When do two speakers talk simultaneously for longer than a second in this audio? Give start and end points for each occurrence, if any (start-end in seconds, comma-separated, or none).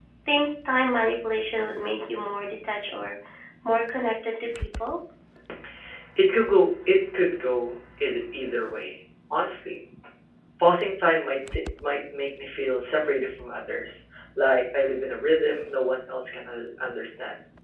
none